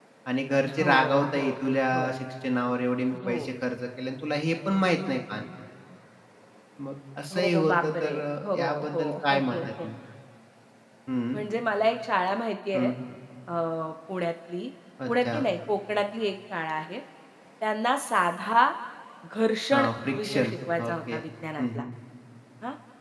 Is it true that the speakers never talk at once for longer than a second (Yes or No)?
No